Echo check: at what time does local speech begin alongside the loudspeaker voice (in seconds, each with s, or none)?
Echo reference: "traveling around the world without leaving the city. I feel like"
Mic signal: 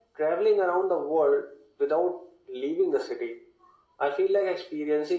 none